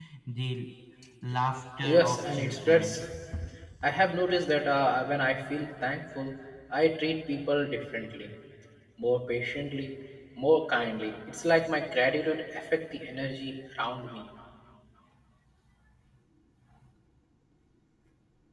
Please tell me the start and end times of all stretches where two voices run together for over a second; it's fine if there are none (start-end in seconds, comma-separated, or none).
1.8-3.0